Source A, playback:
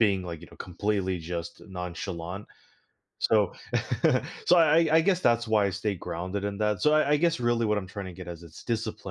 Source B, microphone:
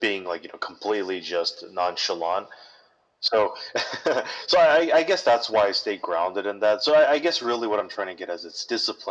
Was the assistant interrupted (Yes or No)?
No